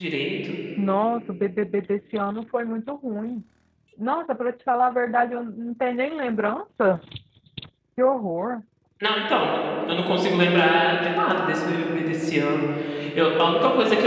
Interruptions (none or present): none